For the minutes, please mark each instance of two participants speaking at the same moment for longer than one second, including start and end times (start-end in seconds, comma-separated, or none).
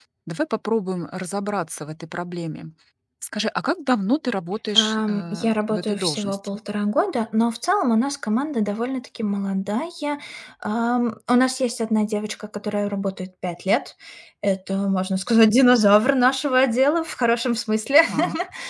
4.8-6.6